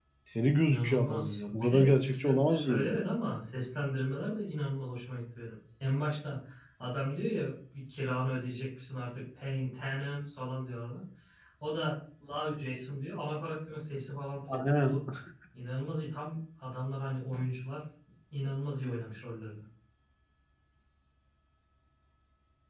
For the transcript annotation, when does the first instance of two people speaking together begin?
1 s

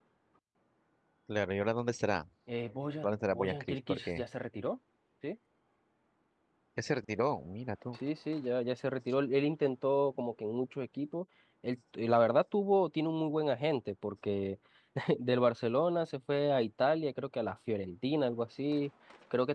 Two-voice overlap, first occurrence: 3 s

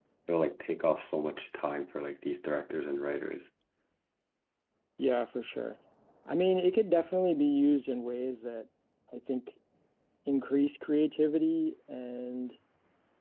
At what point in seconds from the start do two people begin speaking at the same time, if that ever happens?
none

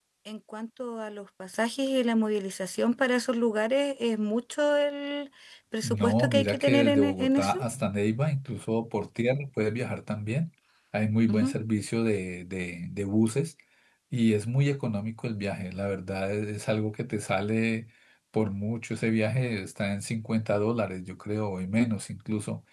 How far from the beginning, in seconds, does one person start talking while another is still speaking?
6 s

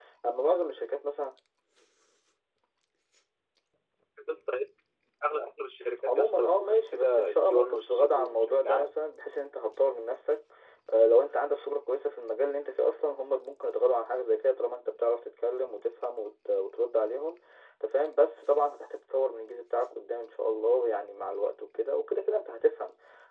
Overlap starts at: 6 s

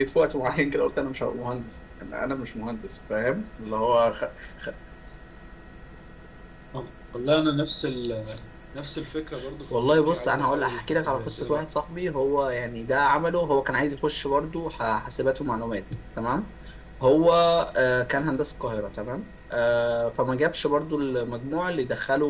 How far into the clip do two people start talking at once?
10 s

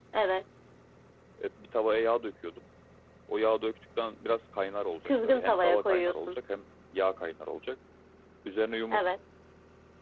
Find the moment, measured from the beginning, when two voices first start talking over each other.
5 s

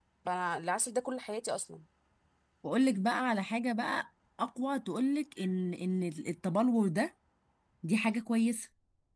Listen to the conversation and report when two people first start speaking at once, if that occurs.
none

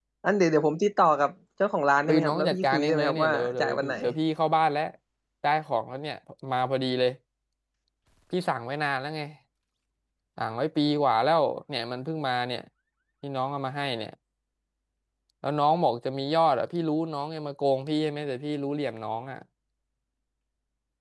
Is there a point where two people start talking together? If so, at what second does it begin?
2 s

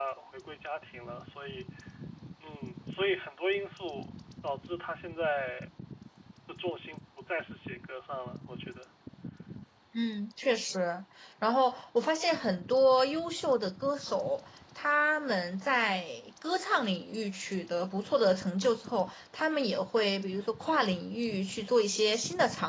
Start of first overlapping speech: none

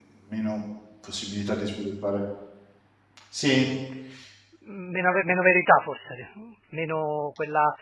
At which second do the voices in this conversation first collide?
none

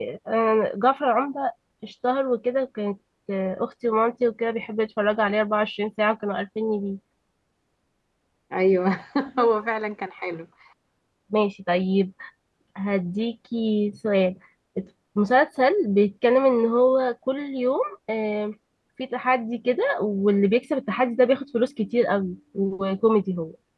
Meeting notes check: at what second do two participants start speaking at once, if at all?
none

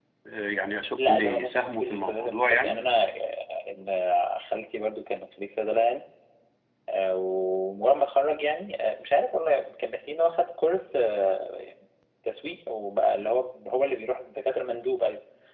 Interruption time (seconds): 1 s

